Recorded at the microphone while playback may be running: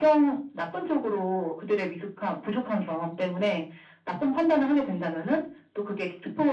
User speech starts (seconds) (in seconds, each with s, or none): none